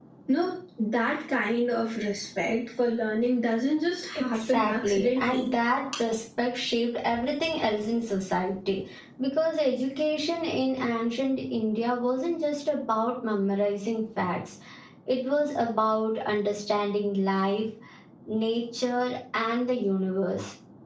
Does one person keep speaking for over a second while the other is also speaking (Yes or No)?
Yes